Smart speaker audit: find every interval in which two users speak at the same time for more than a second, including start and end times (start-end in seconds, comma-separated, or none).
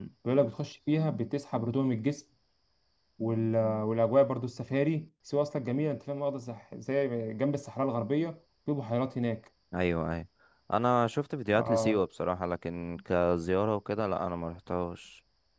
none